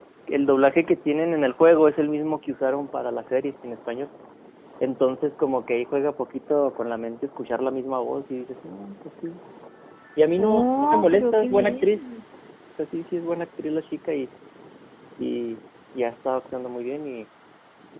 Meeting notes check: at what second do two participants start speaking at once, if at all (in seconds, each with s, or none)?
10.4 s